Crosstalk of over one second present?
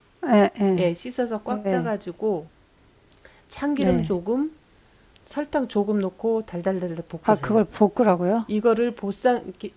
No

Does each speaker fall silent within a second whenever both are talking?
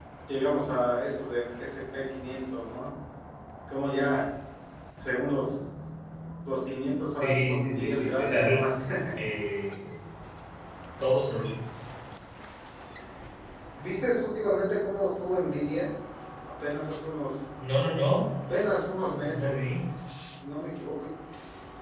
No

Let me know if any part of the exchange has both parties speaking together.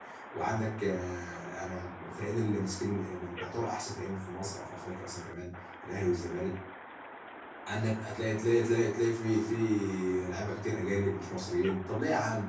No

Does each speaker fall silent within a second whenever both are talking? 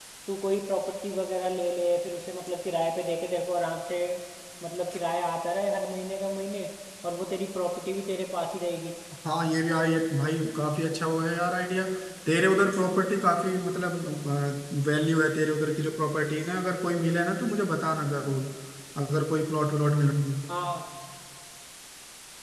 Yes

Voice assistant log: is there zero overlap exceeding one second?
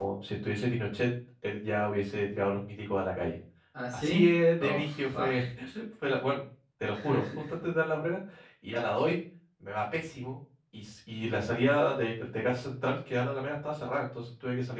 No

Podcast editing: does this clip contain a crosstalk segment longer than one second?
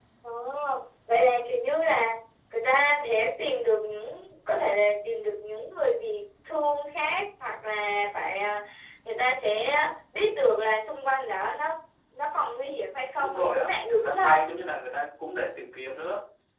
Yes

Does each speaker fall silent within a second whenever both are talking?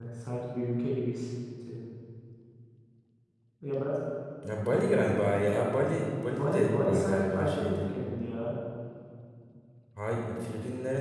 No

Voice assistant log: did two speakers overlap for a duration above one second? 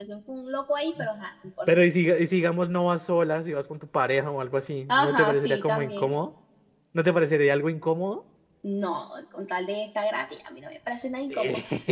Yes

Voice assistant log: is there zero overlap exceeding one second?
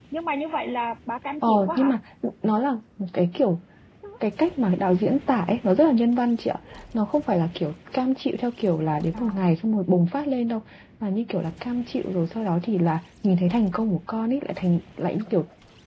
Yes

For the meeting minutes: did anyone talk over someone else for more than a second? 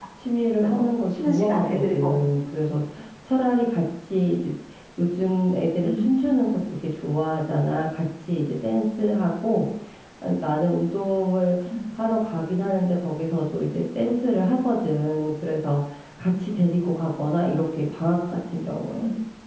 Yes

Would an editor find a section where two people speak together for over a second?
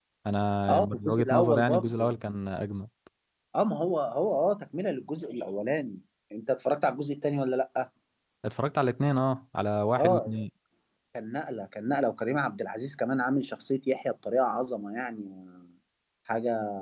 Yes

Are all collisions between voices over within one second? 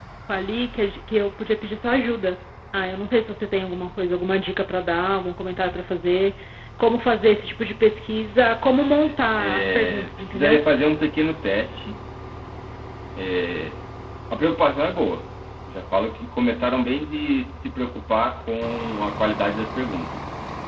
No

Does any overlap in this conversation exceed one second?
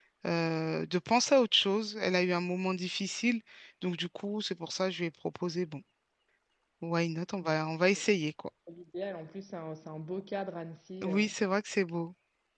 No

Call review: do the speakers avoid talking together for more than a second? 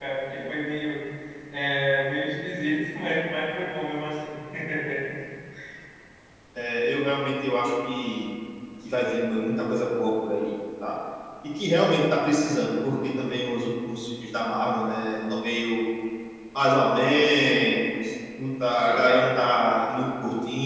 Yes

